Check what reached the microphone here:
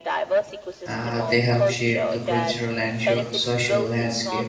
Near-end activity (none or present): present